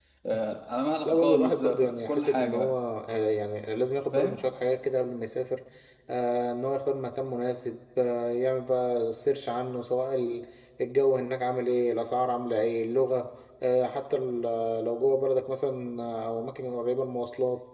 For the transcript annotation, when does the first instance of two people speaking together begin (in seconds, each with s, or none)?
1.1 s